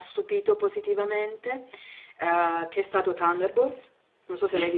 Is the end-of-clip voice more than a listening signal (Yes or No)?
Yes